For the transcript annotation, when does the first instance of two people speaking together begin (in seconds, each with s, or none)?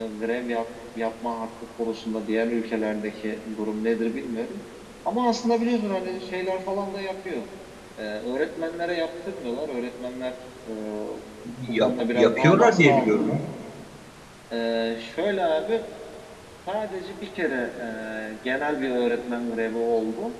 11.8 s